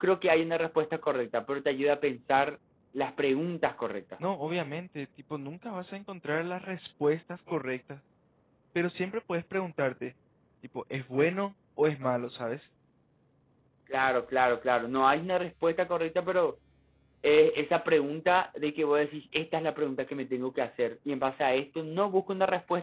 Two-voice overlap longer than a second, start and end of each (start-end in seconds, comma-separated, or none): none